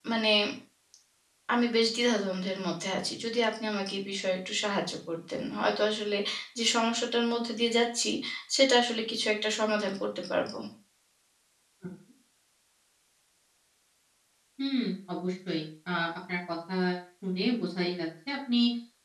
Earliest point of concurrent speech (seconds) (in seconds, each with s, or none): none